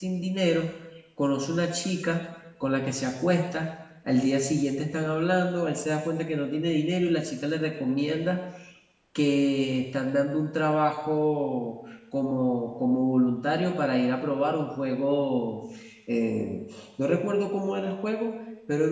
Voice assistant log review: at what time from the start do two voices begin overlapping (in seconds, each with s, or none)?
none